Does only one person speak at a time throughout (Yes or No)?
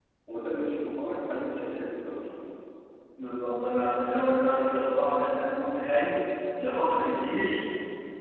Yes